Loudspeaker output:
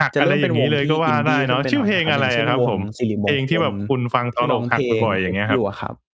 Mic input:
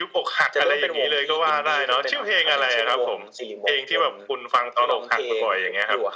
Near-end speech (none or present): none